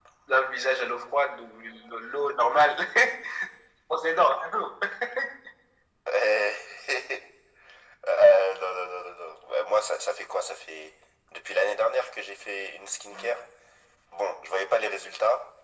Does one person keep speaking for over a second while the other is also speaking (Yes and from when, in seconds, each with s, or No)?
No